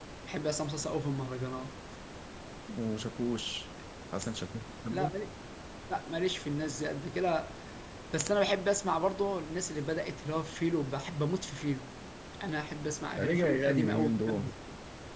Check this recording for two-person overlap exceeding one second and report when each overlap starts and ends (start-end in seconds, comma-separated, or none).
13.2-14.4